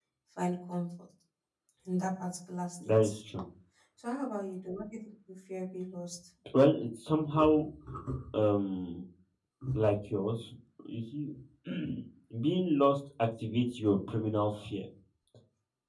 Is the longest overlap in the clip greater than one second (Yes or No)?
No